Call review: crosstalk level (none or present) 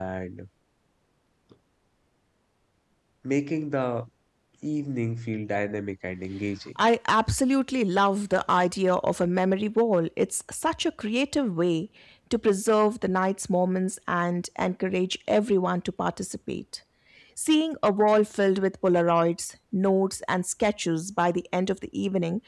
none